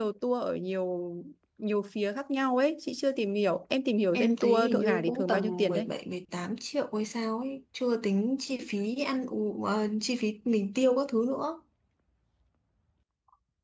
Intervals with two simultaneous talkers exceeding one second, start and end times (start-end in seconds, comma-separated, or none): 4.1-5.9